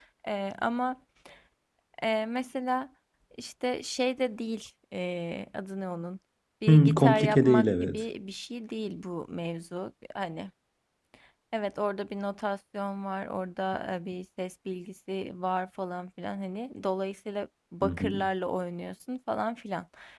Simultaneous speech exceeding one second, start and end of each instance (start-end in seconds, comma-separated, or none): 6.7-8.0